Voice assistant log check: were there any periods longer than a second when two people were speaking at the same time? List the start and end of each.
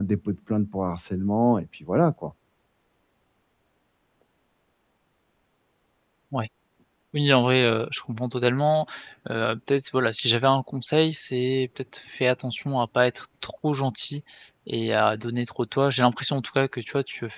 none

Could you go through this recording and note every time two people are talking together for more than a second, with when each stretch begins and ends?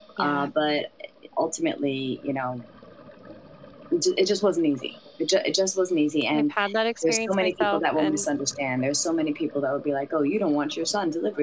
7.0-8.3

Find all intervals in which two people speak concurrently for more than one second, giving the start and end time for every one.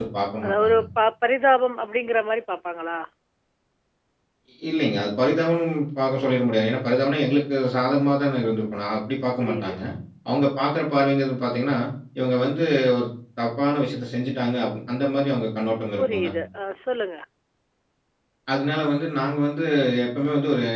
none

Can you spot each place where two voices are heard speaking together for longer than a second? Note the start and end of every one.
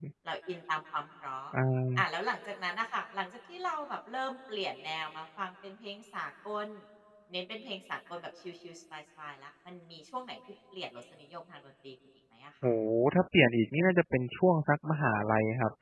none

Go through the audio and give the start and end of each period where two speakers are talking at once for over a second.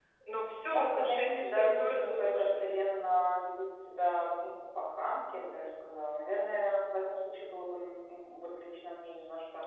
0.7-2.7

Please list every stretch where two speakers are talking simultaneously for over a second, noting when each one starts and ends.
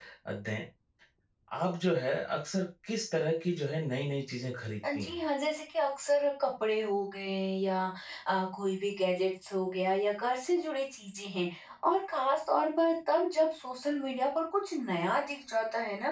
none

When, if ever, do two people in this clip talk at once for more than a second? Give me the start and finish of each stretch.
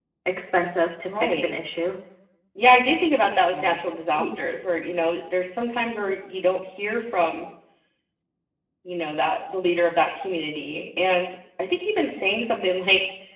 none

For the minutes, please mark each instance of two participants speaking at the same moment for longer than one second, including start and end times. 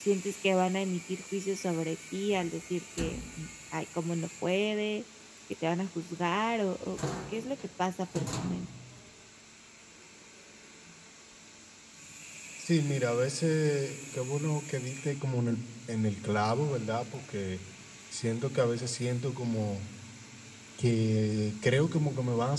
none

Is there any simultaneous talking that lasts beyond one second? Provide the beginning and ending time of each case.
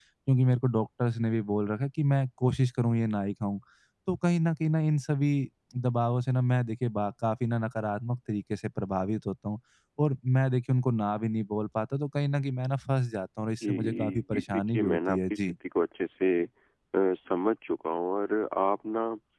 13.6-15.6

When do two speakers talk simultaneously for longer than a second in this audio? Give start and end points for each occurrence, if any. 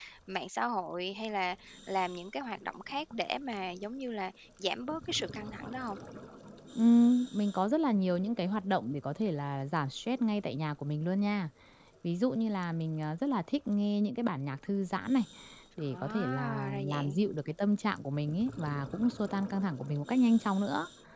15.8-17.2

